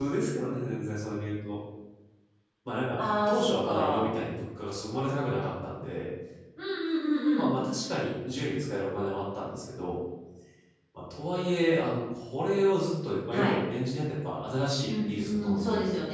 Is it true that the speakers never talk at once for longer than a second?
No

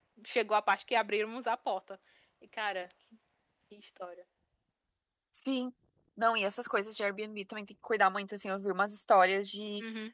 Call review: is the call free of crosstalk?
Yes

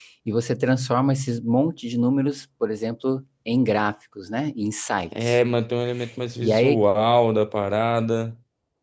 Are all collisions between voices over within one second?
Yes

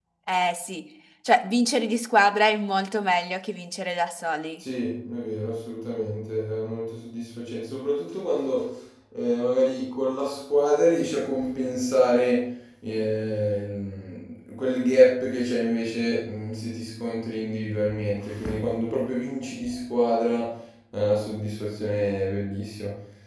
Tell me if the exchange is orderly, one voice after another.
Yes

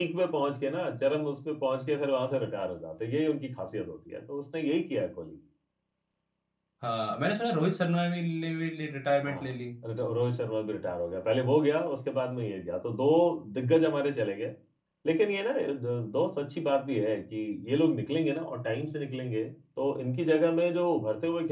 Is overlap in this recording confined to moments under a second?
Yes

